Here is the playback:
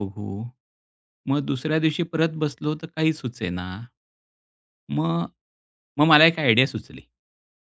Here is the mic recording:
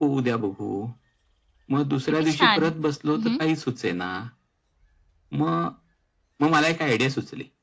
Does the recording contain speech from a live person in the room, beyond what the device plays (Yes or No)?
Yes